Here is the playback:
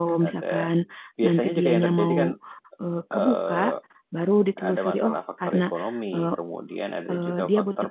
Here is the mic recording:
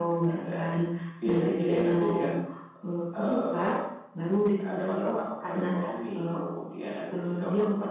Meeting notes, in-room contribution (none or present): none